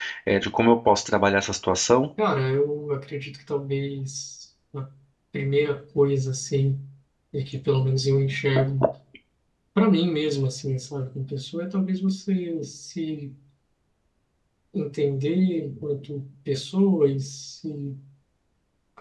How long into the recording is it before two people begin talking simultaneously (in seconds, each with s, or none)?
none